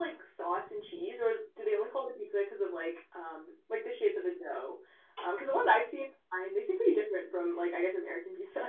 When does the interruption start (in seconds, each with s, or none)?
none